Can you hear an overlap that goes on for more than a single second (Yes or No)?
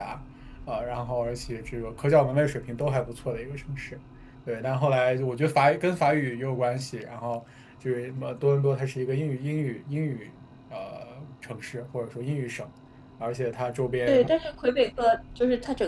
No